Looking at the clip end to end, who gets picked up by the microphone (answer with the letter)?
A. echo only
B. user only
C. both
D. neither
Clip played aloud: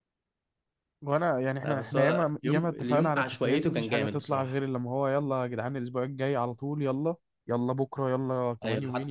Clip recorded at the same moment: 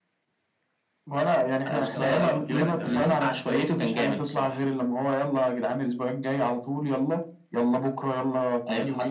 C